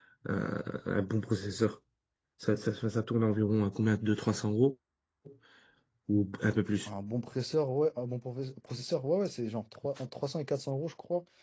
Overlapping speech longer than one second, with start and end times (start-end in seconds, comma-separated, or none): none